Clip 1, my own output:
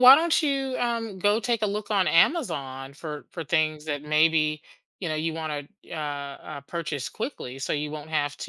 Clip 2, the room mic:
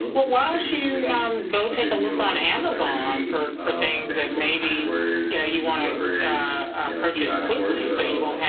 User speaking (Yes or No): Yes